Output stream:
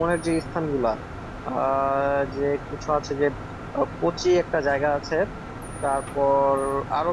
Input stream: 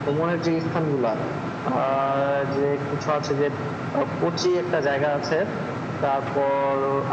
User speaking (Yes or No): No